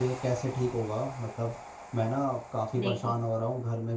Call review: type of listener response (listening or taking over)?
listening